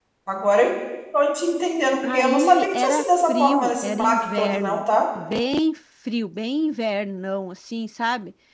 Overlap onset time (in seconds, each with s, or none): 2.0 s